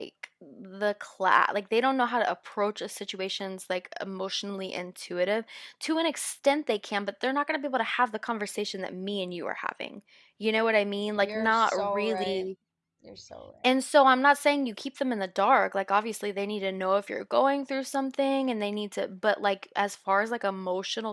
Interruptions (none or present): present